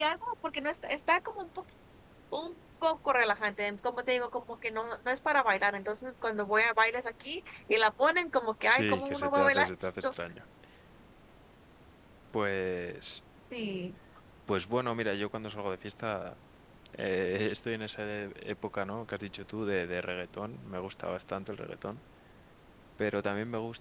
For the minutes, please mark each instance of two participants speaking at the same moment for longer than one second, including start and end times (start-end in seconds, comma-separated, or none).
8.6-10.1